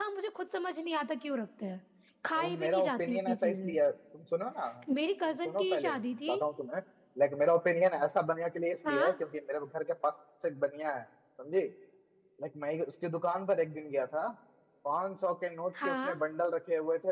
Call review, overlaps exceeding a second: present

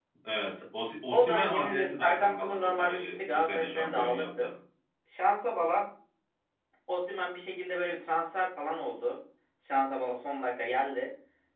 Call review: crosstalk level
present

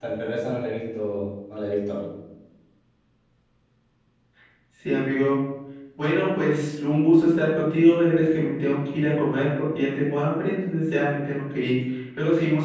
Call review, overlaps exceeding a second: none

